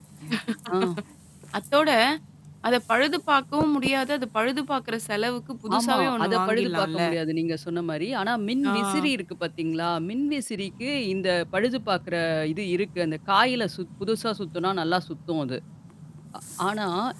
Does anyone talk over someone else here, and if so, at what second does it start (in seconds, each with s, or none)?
5.8 s